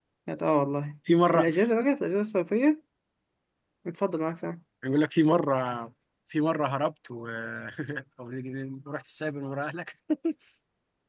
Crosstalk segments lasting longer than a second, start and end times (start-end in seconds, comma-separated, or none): none